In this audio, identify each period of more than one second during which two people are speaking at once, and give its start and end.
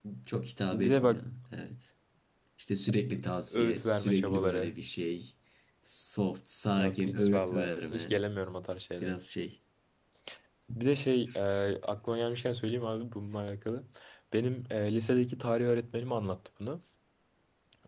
3.5-4.7, 6.7-8.2

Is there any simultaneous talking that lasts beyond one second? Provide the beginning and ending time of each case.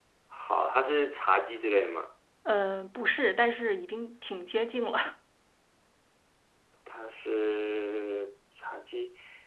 none

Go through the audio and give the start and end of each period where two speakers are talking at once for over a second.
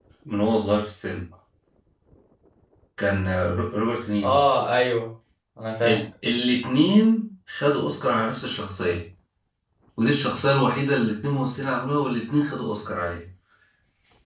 none

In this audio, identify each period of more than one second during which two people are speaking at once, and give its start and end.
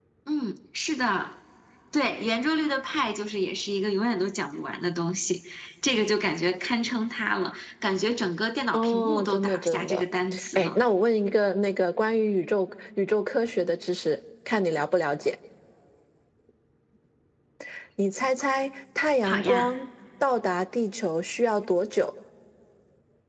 8.7-10.0

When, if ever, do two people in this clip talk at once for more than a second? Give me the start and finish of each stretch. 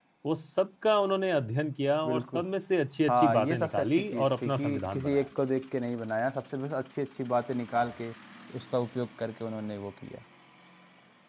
3.1-5.2

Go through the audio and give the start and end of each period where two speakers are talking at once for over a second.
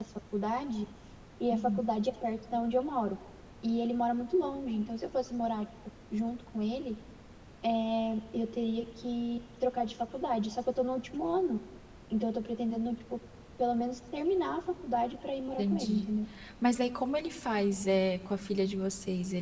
none

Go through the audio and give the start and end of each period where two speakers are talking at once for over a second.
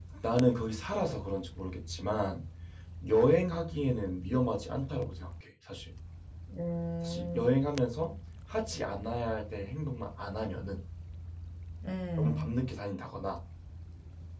none

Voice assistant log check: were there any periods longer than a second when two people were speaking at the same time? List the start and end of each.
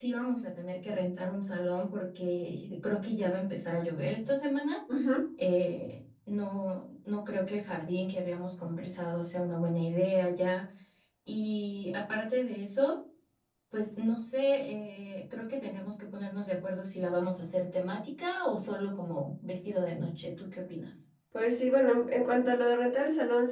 none

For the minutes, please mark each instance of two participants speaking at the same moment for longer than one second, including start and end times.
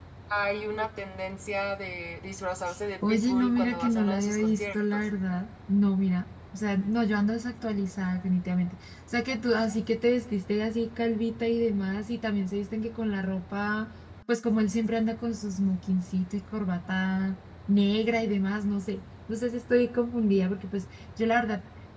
3.1-4.8

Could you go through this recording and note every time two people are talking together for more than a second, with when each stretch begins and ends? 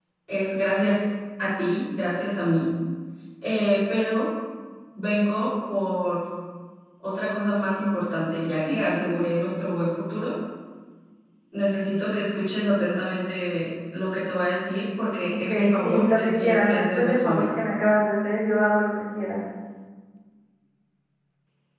15.5-17.5

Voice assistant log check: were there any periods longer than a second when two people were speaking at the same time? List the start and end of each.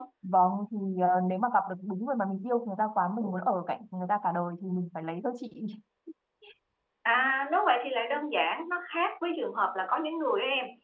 none

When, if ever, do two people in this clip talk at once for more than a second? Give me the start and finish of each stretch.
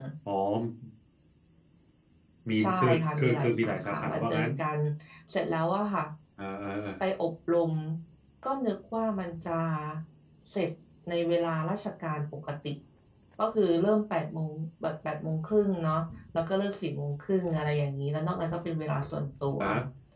2.6-4.5

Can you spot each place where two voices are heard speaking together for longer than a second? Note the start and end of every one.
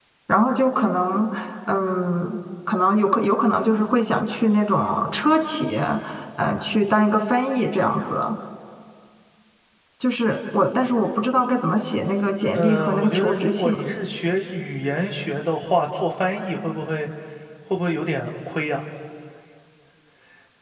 12.5-13.8

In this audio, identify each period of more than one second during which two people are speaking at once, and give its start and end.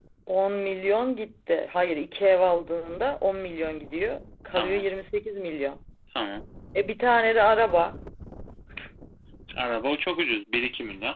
none

